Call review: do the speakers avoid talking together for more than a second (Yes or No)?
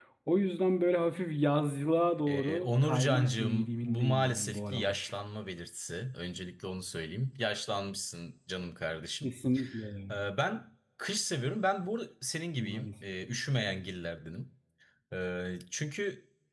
No